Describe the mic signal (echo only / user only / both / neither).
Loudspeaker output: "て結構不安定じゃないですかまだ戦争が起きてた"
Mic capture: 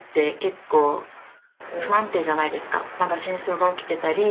both